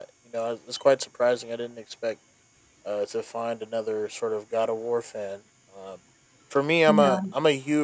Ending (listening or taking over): listening